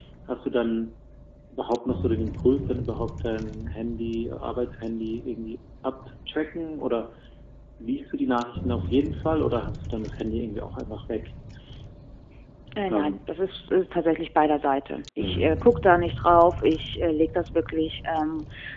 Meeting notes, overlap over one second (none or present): none